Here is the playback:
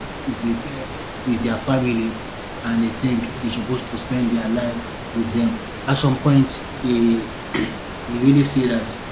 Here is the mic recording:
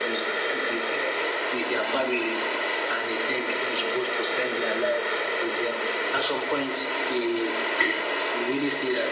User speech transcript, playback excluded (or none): none